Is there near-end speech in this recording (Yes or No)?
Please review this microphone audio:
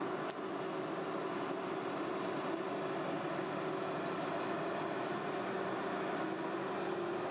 No